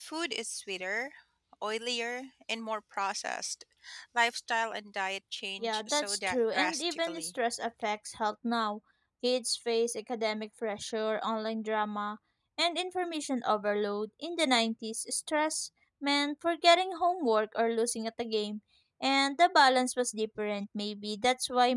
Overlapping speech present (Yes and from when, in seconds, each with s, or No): Yes, from 5.6 s